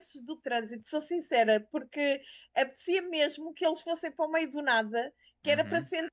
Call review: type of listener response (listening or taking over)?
listening